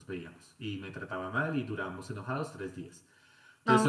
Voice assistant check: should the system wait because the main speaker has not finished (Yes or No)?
No